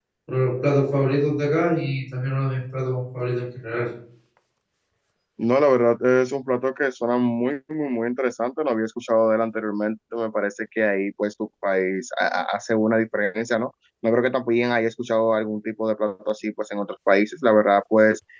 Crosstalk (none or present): none